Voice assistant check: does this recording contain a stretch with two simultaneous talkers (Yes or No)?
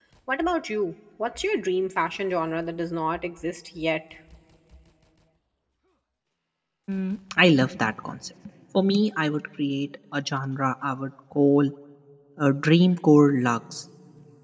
No